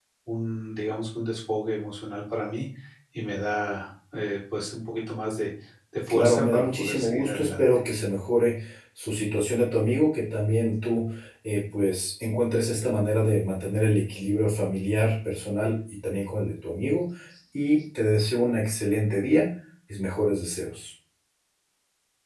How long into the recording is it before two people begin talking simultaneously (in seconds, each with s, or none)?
6.1 s